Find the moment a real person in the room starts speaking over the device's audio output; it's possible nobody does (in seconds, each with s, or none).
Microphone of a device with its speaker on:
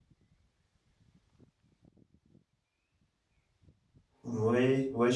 4.2 s